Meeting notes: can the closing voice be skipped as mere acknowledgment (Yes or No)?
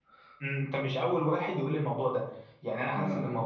Yes